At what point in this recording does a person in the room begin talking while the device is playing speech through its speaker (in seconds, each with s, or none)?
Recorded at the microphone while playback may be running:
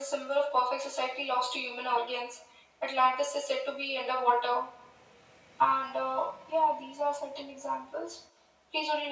none